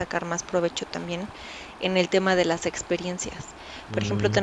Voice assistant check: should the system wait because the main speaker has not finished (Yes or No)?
Yes